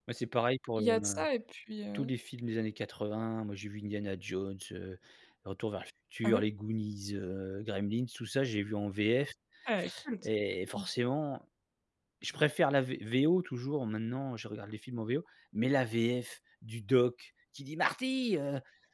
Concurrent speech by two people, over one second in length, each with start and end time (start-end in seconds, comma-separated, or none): none